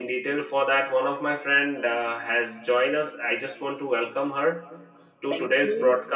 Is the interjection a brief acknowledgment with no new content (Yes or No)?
Yes